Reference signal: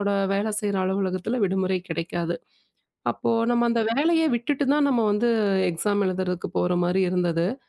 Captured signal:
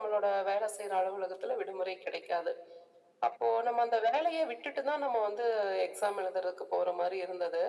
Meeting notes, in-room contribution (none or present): none